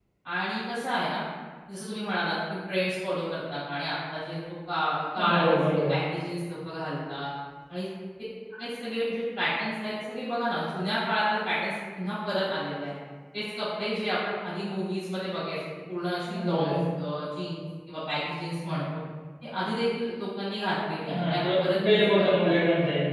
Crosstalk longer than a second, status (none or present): present